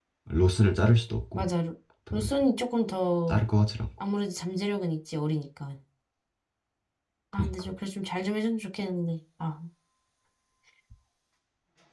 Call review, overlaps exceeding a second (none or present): none